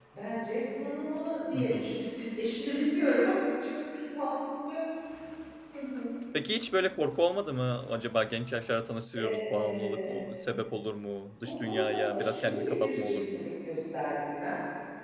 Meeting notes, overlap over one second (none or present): present